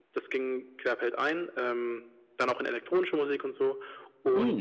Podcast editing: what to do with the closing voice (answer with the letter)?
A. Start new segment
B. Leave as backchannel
B